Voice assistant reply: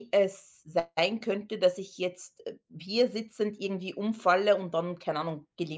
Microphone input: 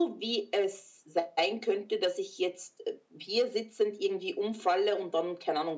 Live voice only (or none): none